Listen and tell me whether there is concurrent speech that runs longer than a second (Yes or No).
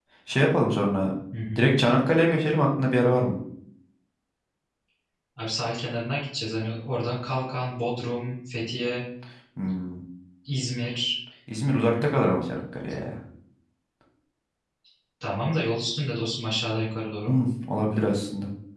No